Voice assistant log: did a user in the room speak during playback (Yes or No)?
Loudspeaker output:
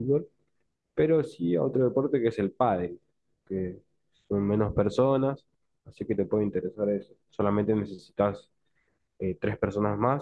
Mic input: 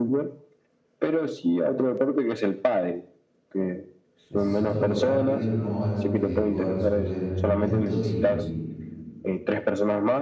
Yes